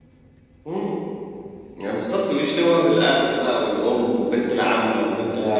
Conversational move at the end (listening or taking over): taking over